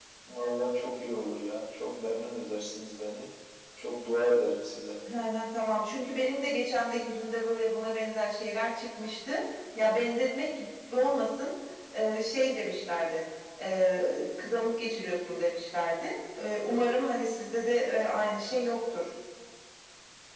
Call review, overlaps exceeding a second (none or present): none